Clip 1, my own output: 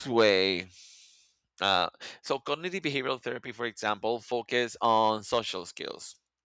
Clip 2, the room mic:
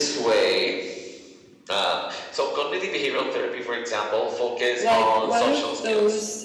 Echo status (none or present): present